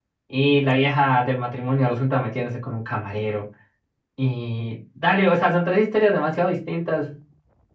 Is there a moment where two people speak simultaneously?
No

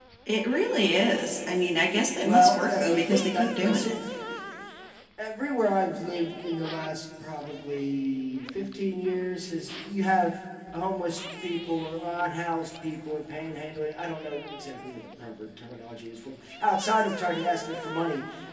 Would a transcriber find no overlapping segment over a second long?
No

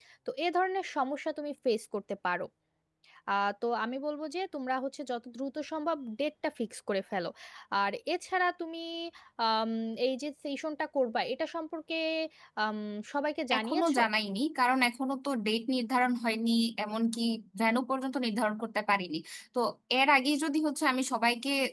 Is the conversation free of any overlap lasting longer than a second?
Yes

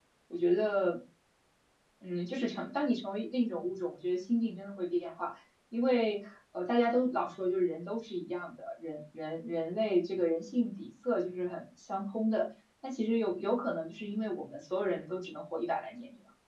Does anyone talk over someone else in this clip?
No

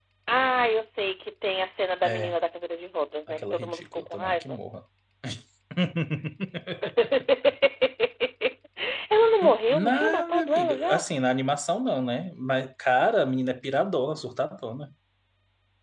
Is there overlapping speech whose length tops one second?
Yes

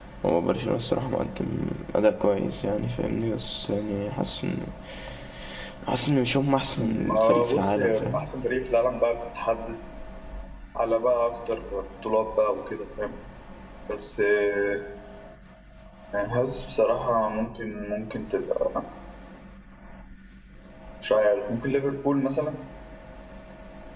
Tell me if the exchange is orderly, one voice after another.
No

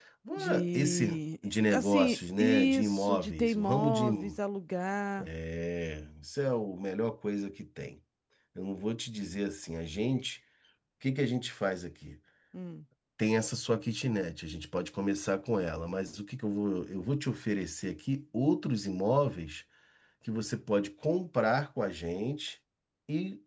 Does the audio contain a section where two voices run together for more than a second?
Yes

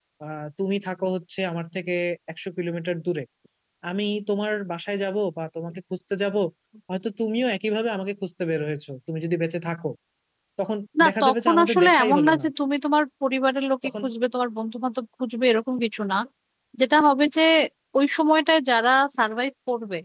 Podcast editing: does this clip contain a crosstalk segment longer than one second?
Yes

